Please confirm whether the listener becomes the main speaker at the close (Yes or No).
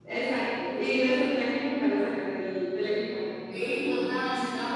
Yes